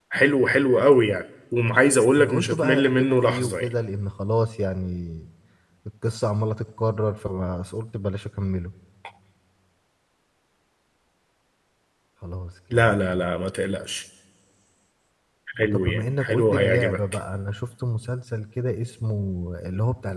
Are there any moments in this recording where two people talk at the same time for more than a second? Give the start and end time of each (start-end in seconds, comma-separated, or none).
2.1-3.7, 15.7-17.0